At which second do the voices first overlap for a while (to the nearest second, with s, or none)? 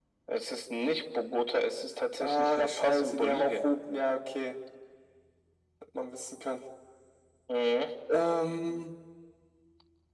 2 s